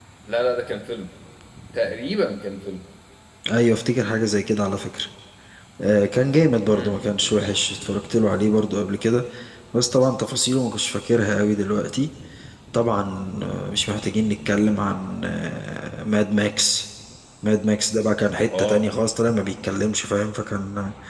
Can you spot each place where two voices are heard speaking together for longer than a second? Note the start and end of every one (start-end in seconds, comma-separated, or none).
none